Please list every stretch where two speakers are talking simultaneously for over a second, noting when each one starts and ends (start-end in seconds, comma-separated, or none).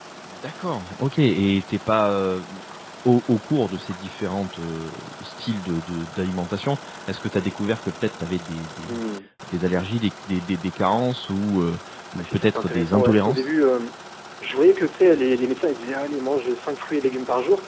12.2-13.4